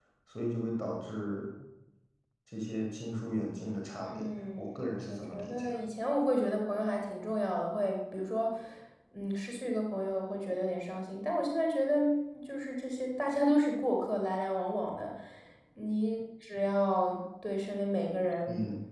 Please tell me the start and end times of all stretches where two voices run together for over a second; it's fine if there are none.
4.0-5.8

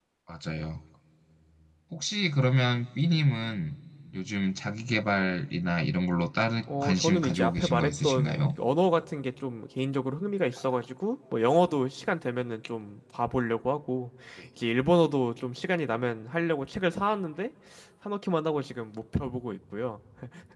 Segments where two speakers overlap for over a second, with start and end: 6.8-8.6

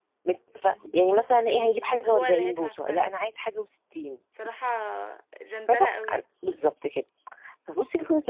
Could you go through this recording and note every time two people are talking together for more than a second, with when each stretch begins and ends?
1.5-3.0

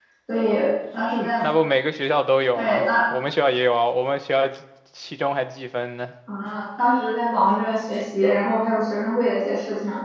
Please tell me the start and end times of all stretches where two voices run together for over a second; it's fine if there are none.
none

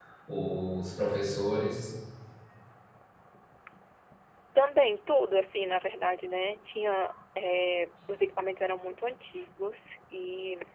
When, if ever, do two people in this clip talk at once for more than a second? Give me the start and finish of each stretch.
none

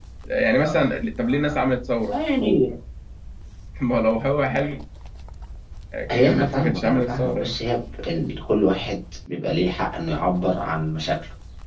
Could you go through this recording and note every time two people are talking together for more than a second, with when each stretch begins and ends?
6.2-7.6

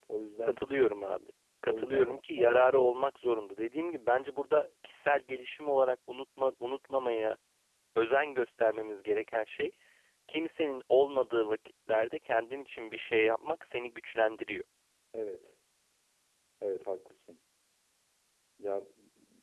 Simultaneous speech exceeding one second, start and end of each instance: 1.7-3.0

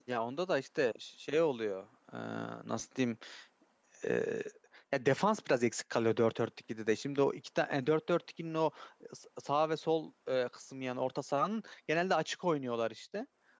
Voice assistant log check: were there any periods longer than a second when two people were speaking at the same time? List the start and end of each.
none

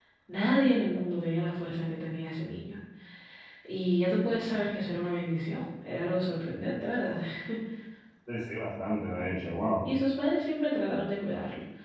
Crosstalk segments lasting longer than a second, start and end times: none

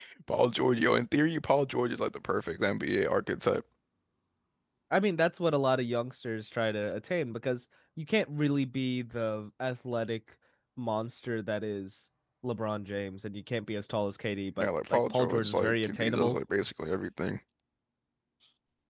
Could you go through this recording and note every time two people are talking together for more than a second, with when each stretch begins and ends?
14.6-16.4

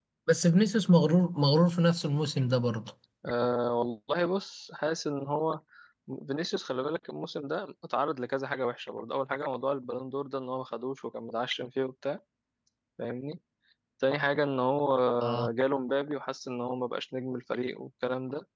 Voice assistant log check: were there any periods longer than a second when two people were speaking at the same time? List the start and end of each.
none

